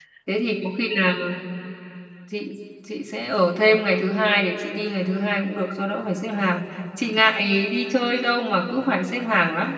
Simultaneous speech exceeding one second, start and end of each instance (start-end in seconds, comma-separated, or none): none